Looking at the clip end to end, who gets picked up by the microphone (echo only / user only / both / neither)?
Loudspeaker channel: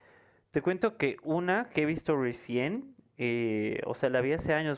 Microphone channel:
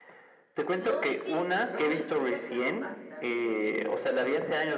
both